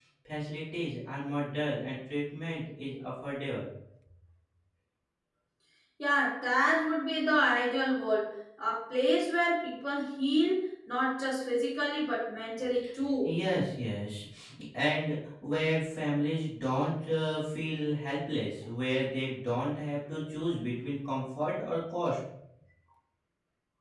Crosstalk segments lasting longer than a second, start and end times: none

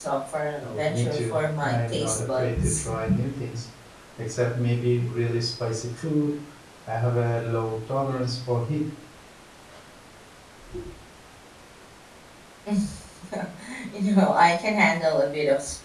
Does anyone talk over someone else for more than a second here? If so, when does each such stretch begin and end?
0.6-2.9

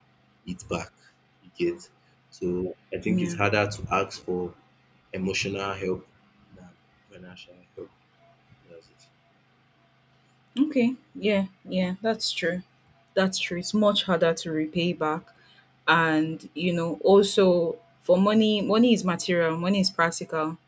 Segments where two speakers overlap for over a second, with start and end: none

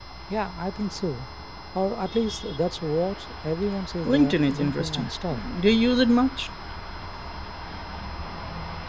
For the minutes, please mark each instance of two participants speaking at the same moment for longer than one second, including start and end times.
4.1-5.4

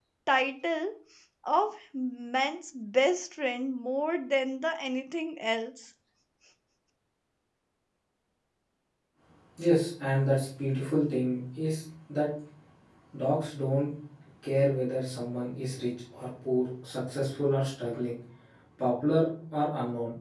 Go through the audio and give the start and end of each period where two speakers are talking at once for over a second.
none

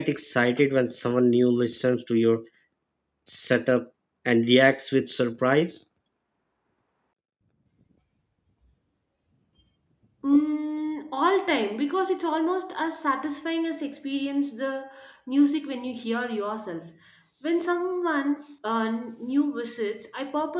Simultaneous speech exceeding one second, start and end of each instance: none

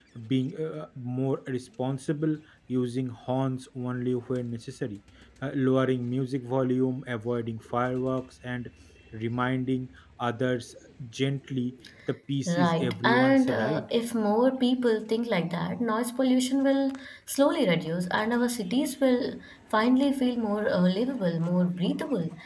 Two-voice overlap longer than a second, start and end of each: 12.5-13.8

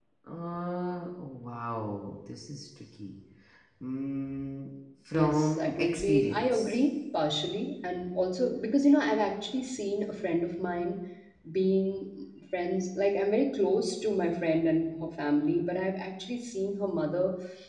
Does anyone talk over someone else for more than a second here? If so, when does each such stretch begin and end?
5.2-6.8

